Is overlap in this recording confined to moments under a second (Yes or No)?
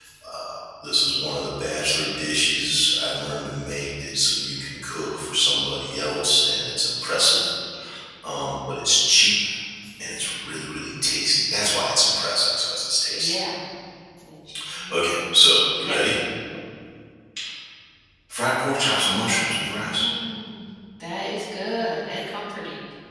Yes